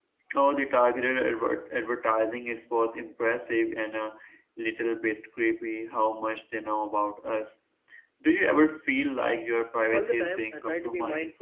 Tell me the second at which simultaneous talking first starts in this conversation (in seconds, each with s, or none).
9.9 s